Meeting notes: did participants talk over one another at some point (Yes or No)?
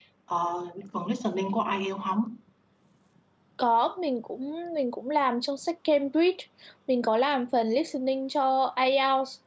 No